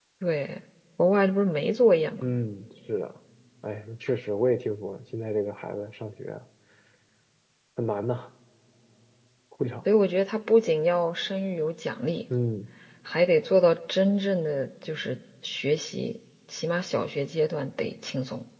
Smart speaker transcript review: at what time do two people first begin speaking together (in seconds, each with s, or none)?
none